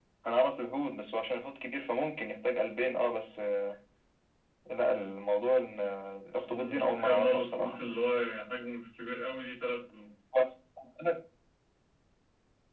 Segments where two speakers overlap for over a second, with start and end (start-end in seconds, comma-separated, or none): 6.5-7.8